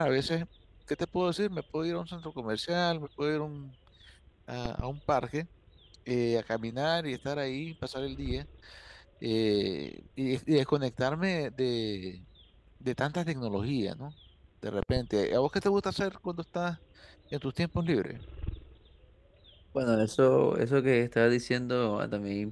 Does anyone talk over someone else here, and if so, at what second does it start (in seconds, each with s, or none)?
none